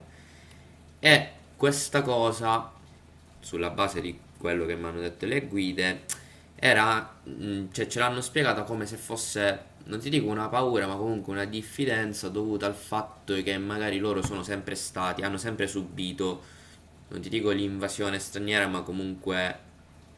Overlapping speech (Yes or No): No